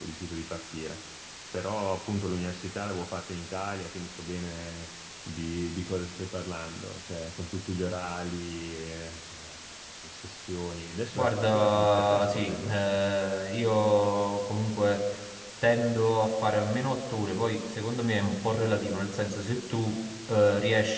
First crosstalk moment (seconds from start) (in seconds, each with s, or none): 11.2 s